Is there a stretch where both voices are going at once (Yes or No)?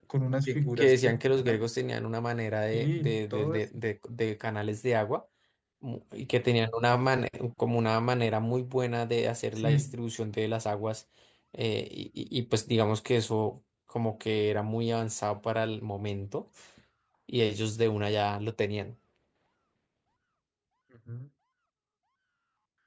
Yes